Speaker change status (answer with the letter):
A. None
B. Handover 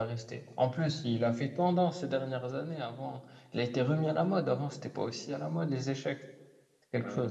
B